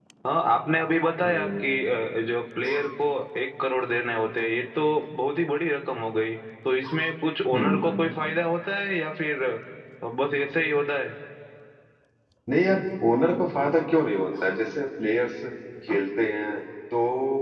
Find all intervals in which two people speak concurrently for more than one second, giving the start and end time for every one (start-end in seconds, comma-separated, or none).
none